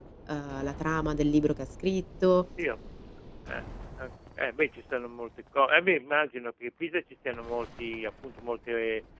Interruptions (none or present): none